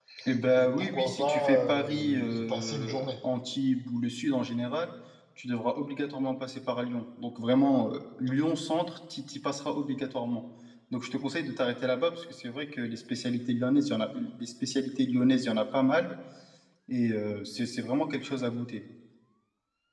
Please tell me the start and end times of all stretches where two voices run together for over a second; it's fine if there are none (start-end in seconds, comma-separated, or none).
0.5-3.1